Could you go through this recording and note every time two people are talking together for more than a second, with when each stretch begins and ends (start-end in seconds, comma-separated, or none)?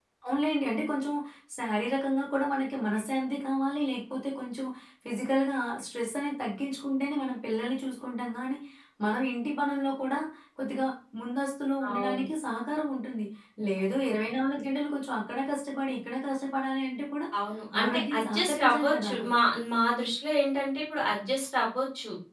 17.8-19.1